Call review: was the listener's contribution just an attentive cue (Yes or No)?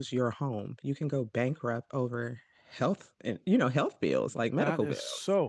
No